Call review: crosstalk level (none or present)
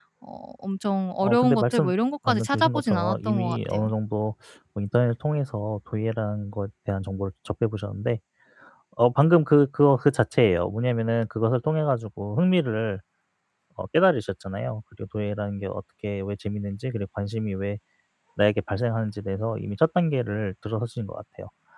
present